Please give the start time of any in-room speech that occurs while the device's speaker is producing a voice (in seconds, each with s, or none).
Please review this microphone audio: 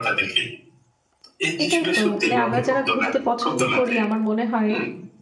1.6 s